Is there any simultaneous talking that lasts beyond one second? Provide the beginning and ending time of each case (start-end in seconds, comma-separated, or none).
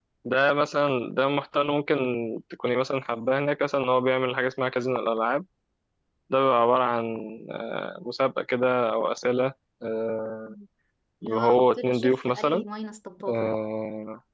11.3-12.6